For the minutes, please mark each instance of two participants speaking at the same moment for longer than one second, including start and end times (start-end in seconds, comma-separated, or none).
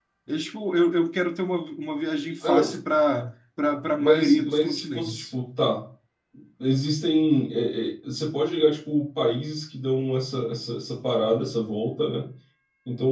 4.0-5.2